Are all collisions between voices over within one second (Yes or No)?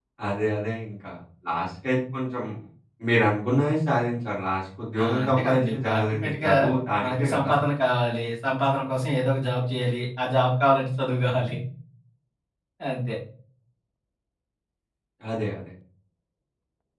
No